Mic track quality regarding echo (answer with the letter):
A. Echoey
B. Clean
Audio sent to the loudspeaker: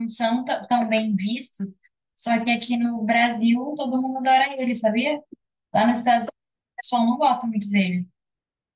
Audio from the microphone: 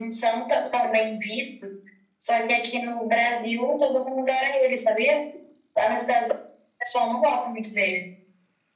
A